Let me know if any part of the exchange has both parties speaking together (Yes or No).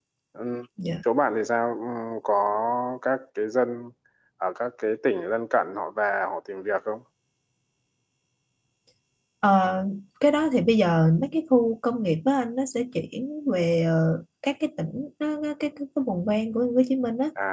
No